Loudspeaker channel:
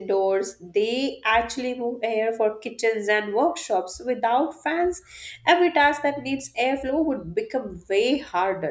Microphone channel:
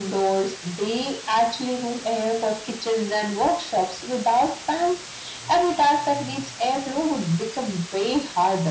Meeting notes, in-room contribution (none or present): none